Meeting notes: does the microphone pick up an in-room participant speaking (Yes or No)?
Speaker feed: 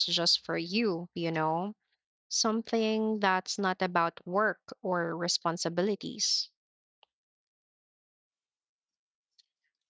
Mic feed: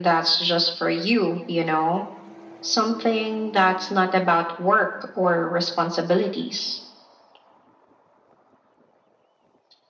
No